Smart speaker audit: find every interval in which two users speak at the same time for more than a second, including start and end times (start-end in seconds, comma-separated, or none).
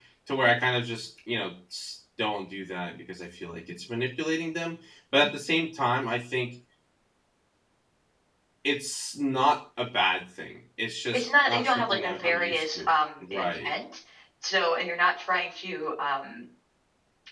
11.1-13.7